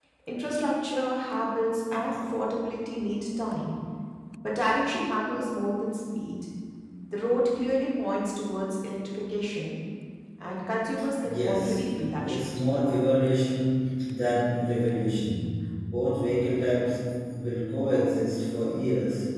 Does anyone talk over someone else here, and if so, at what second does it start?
11.2 s

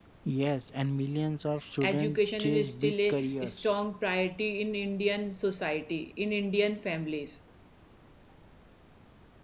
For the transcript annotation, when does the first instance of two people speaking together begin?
1.8 s

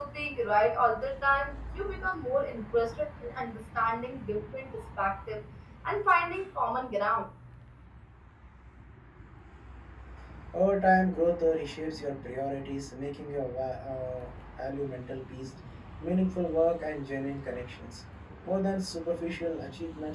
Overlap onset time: none

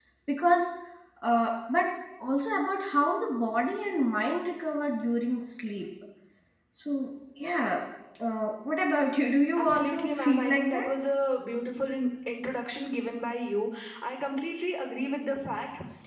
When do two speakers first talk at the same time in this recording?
9.6 s

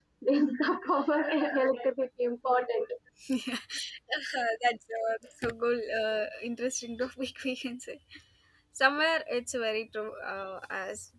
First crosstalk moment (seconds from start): none

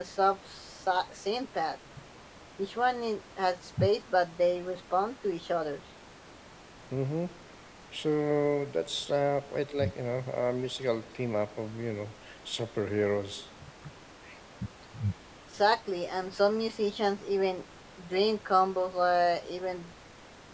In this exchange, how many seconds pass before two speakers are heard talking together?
none

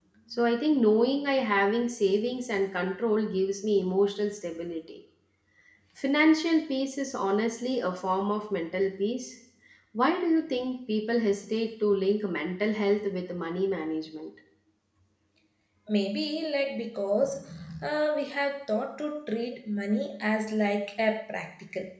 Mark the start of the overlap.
none

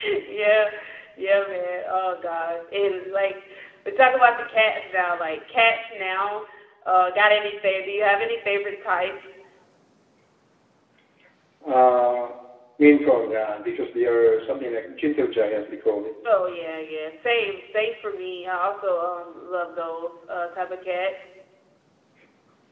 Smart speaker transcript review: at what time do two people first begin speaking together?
none

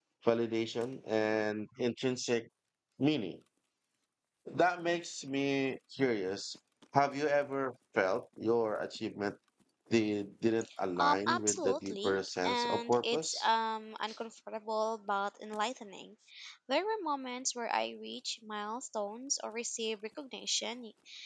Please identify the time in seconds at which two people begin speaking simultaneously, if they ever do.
11.0 s

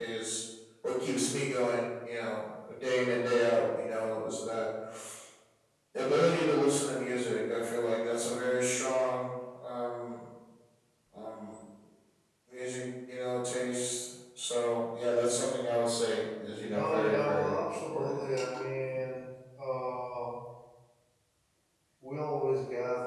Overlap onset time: 16.7 s

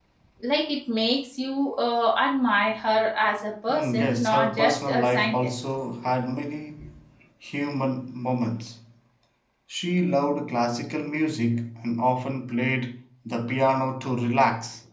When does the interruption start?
3.7 s

